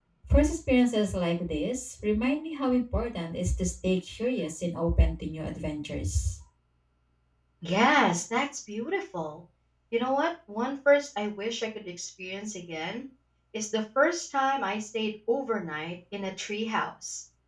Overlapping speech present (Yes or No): No